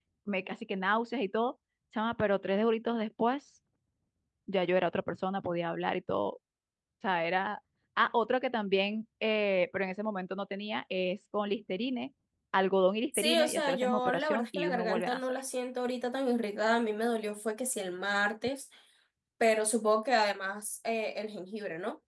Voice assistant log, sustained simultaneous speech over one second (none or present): present